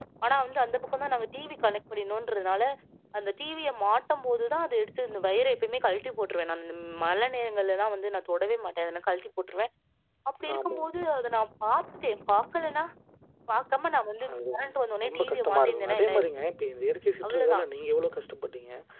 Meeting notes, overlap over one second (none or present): present